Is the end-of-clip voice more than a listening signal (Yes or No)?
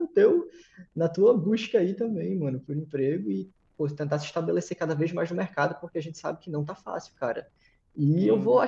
No